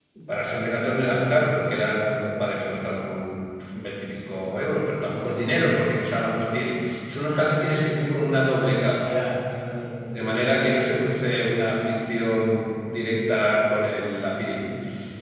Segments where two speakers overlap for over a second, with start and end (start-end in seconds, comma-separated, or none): none